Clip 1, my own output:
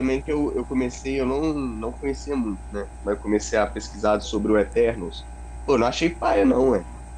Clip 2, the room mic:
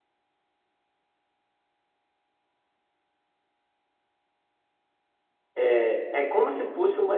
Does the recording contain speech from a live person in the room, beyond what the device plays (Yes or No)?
Yes